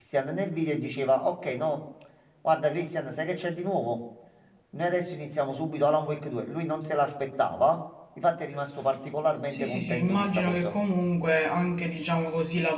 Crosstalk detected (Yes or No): Yes